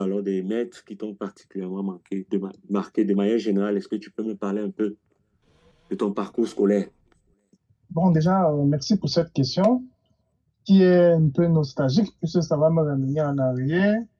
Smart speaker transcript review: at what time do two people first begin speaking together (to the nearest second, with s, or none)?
none